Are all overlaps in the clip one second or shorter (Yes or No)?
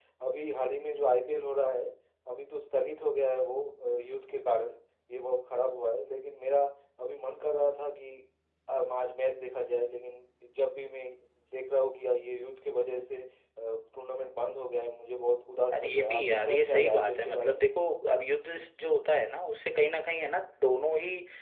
No